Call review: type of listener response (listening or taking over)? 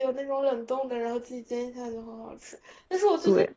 listening